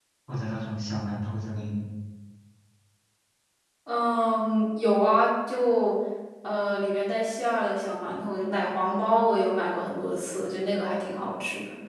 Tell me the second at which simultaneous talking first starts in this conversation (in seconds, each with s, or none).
none